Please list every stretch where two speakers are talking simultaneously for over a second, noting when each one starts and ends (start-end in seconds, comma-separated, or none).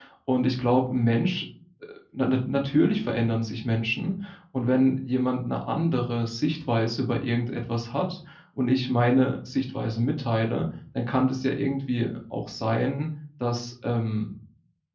none